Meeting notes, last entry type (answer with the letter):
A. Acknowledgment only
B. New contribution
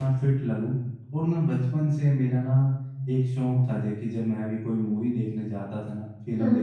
A